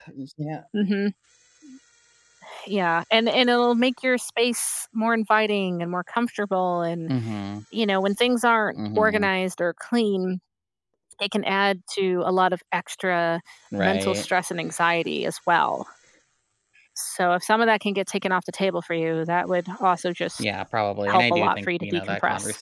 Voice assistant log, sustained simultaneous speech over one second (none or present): present